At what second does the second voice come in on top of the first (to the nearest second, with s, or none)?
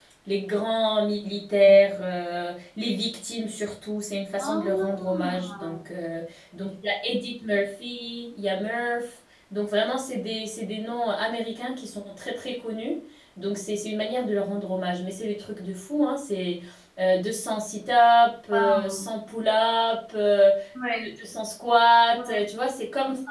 4 s